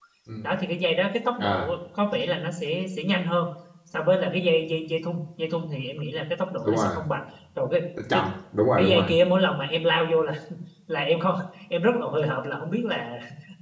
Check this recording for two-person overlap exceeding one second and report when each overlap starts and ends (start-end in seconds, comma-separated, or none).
none